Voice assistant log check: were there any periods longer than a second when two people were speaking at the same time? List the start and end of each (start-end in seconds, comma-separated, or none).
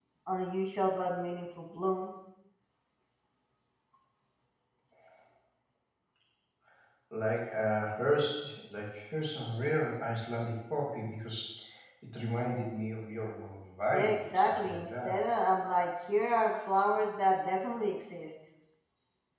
13.9-15.2